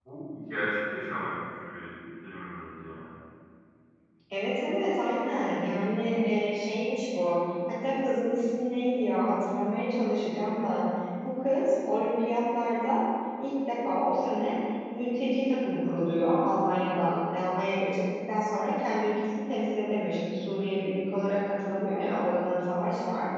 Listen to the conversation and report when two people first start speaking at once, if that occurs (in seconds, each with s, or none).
none